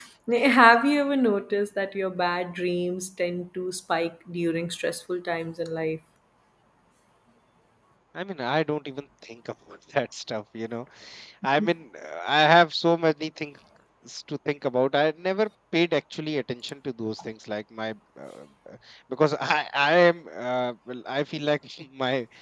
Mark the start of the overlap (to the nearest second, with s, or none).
none